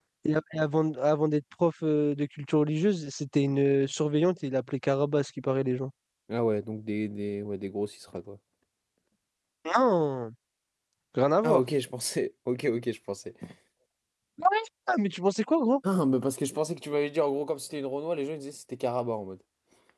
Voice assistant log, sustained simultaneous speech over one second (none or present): none